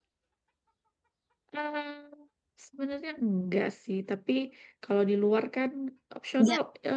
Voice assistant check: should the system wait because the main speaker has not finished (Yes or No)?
Yes